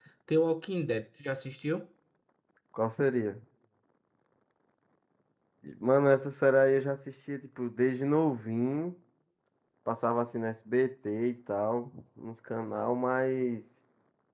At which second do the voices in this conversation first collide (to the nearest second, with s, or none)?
none